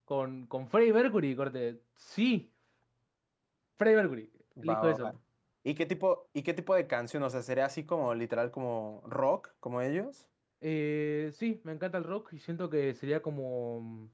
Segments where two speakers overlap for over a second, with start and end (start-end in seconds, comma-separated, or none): none